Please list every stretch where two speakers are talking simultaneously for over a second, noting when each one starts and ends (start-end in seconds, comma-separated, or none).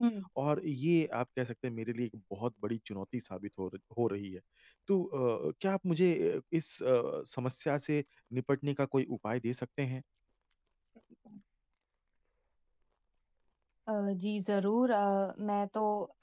none